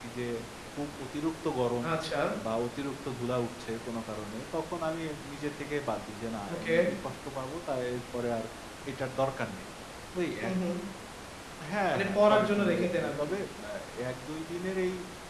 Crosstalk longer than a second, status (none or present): present